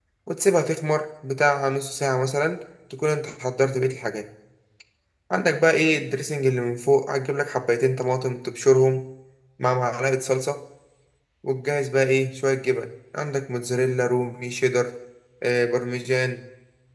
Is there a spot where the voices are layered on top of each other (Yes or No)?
No